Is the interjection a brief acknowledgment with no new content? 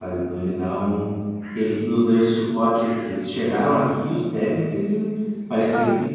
Yes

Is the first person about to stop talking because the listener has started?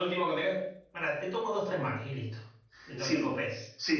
Yes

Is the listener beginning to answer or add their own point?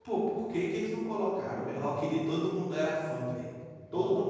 Yes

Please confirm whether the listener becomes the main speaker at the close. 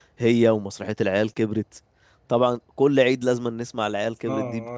Yes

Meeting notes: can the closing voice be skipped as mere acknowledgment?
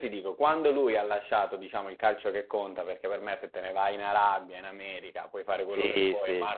Yes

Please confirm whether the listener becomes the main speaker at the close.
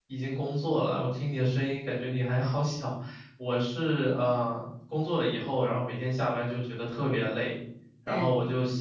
No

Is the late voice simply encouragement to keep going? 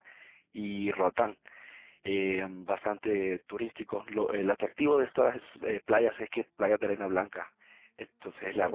No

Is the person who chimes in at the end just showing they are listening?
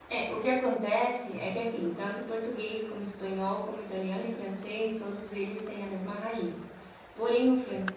Yes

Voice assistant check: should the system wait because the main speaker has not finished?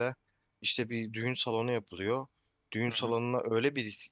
Yes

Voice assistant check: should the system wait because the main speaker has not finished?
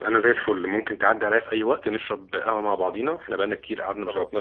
Yes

